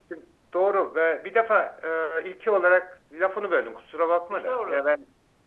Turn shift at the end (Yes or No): No